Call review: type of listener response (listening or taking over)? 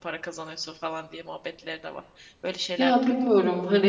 taking over